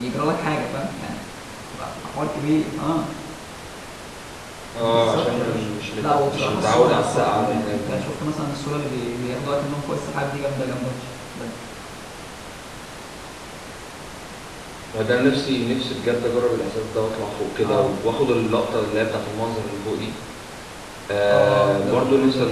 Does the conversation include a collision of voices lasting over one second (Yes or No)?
Yes